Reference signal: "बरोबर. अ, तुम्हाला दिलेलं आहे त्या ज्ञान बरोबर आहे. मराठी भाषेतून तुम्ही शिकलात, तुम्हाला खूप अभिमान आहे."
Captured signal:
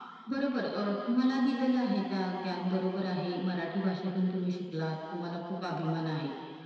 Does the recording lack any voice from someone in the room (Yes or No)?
Yes